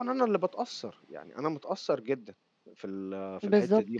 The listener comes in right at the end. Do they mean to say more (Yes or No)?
Yes